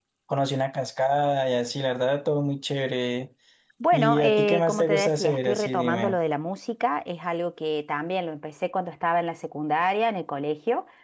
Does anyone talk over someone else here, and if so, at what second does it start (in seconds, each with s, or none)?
3.9 s